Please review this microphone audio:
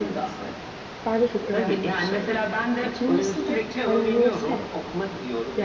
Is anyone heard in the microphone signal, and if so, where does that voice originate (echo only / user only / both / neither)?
both